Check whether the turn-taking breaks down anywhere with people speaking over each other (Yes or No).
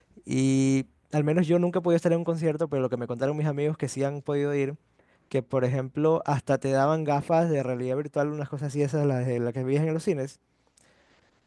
No